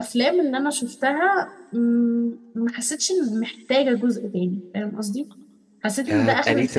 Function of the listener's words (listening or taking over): taking over